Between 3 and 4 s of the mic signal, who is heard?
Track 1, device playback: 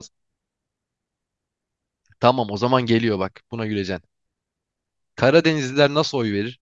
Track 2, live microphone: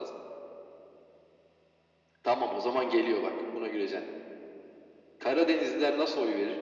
echo only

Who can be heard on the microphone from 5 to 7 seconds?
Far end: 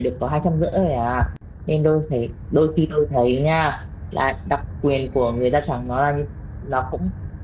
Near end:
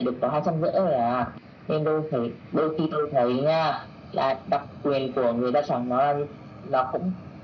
echo only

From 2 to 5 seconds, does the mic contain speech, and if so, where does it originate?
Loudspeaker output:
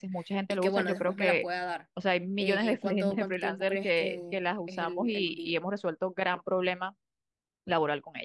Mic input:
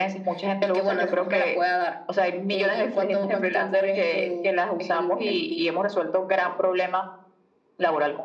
echo only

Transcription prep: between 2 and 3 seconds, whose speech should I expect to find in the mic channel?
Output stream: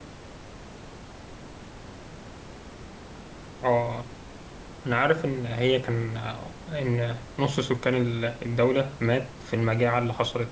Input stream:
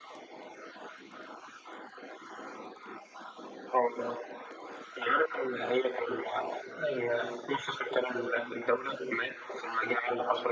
neither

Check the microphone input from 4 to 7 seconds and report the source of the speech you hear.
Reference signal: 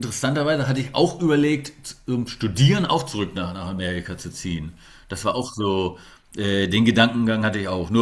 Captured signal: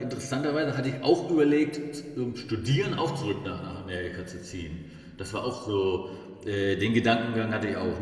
echo only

